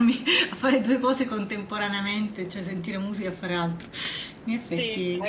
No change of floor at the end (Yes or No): No